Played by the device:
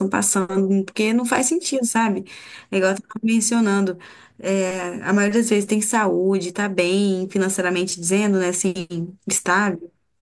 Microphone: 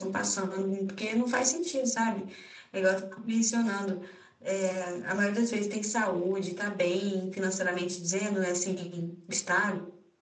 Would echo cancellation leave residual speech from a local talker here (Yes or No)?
No